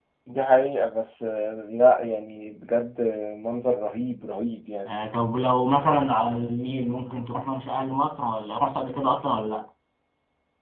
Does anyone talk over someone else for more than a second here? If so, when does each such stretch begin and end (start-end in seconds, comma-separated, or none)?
none